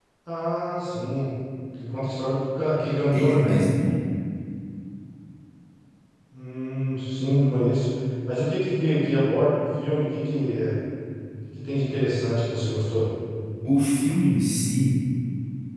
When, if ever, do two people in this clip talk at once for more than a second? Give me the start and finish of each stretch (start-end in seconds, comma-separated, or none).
none